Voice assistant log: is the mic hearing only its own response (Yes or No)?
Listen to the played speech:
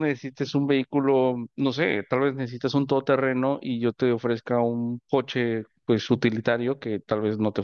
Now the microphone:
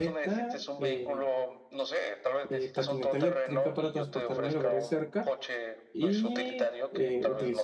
No